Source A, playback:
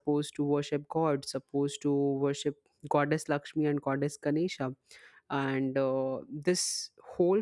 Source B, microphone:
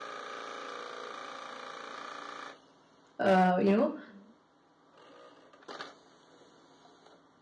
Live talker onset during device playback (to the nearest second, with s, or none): 3 s